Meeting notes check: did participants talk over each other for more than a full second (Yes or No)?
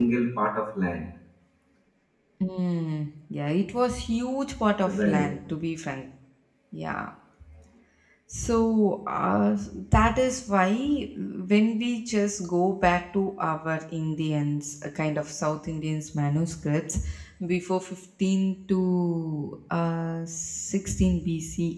No